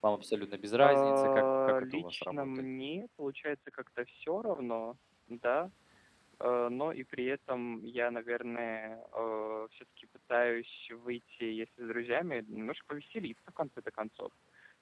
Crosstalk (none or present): present